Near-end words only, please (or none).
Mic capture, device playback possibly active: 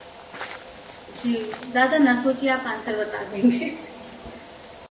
जी ज्यादा ना सोचिए आप आंसर बता देंगे